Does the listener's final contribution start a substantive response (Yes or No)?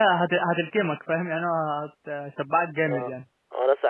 Yes